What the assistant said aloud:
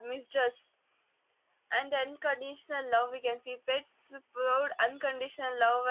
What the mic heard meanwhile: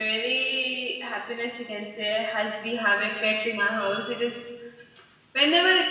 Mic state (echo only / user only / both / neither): user only